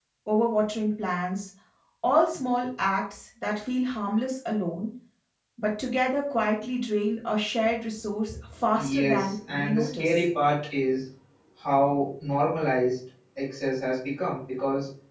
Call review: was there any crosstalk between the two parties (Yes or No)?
Yes